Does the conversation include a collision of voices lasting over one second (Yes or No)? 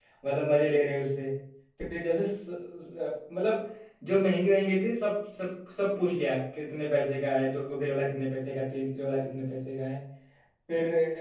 No